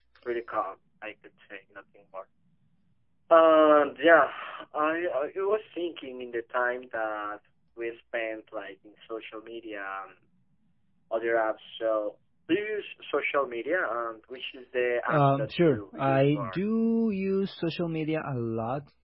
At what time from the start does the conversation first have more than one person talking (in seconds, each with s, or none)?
15.1 s